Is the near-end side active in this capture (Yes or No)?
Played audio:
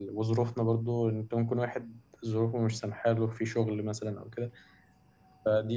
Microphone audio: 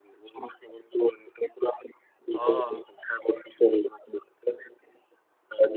Yes